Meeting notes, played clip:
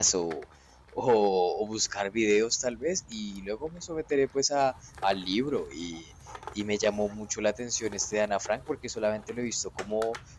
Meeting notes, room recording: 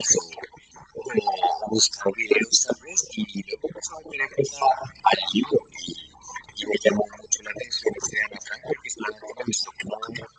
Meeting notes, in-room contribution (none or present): none